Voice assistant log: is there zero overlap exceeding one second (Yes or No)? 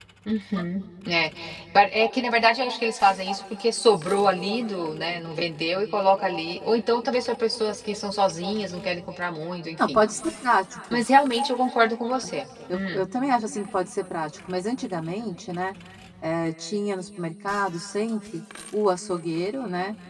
Yes